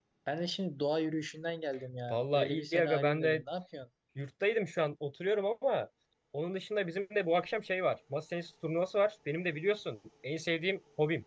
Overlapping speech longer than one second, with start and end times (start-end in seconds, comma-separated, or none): 2.1-3.4